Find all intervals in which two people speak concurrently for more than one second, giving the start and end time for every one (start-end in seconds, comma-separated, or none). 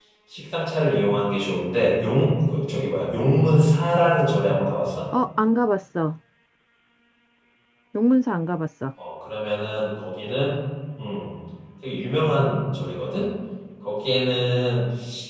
none